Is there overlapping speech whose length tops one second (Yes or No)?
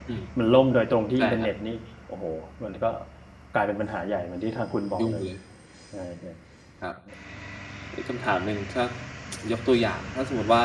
No